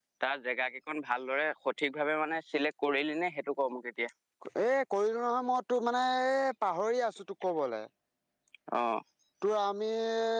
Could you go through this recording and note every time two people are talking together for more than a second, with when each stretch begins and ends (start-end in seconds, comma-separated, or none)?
none